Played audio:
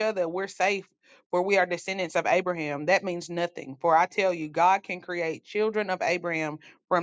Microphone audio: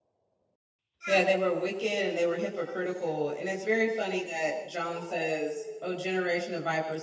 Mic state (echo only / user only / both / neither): user only